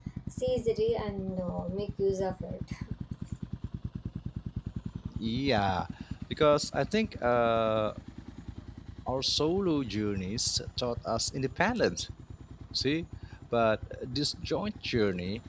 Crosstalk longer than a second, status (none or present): none